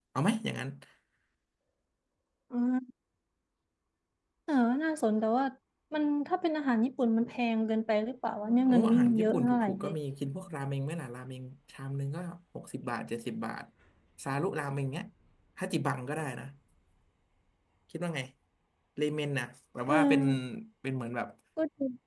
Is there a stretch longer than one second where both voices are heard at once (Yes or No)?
Yes